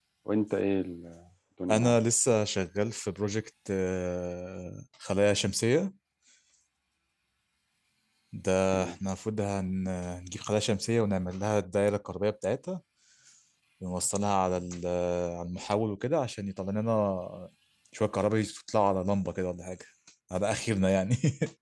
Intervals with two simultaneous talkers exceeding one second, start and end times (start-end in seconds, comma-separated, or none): none